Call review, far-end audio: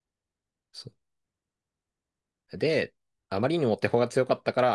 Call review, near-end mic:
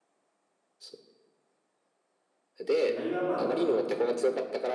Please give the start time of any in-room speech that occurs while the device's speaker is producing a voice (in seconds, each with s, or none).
2.9 s